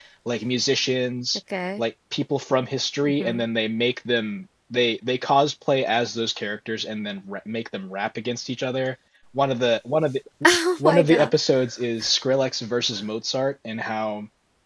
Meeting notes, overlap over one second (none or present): none